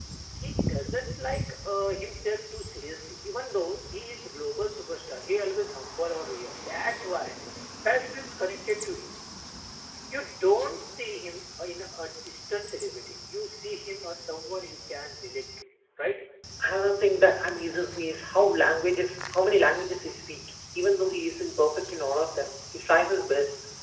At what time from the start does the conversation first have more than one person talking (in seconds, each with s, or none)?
none